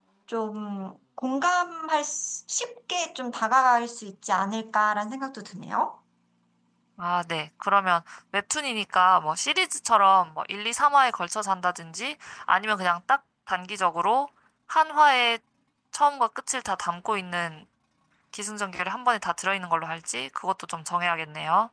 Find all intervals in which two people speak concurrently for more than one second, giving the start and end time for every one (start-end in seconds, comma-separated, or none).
none